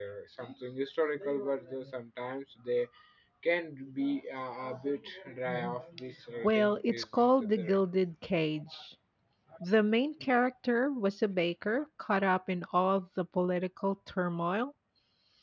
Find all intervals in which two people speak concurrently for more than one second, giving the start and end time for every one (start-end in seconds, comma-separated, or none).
6.4-7.8